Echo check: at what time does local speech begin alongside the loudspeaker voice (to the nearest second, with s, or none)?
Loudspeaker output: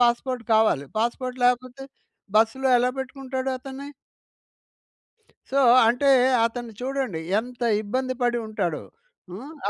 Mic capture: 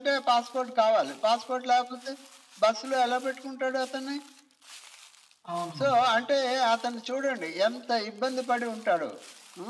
6 s